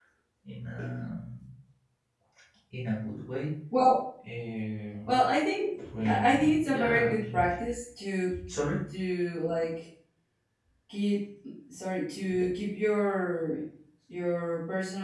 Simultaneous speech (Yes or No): Yes